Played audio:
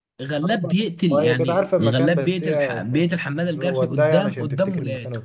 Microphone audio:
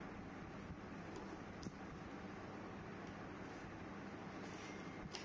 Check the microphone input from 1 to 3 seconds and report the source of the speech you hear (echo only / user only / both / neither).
neither